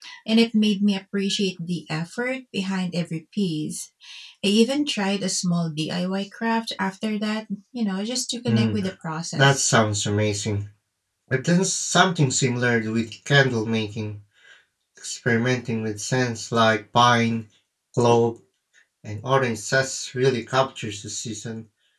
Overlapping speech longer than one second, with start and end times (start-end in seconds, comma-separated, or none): none